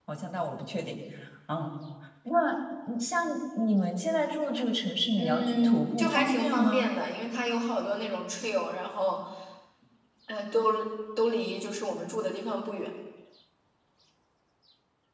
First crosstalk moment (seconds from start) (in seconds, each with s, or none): 5.2 s